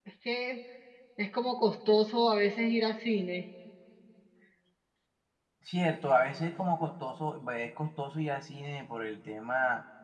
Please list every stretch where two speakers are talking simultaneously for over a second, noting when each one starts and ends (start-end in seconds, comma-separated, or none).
none